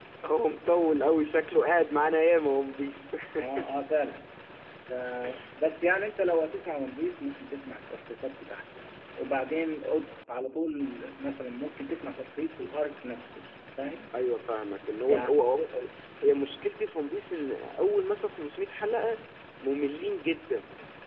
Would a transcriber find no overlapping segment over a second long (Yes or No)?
Yes